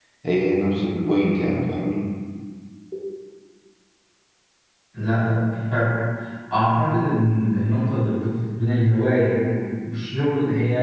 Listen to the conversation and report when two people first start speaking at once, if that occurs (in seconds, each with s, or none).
none